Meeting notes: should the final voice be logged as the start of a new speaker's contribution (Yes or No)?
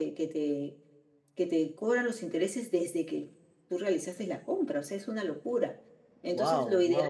Yes